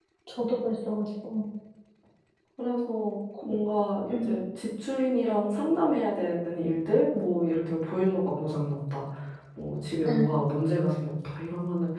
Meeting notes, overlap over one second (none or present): none